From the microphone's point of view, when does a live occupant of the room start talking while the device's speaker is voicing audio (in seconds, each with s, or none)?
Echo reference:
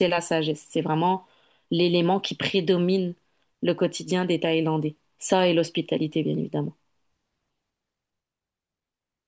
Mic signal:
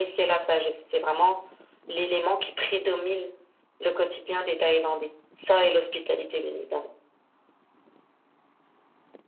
none